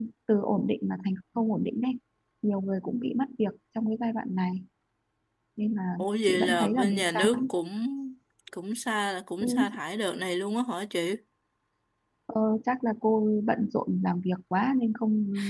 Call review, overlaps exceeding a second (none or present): present